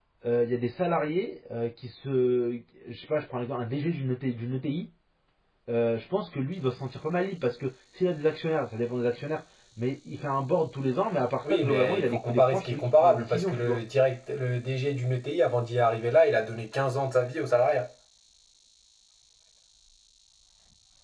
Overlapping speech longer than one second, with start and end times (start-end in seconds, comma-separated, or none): 11.4-13.8